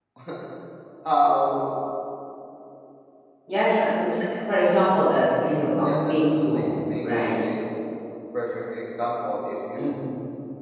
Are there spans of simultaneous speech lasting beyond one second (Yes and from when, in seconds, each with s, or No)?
Yes, from 5.3 s